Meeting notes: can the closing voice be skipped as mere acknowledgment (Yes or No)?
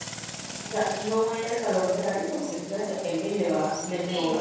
No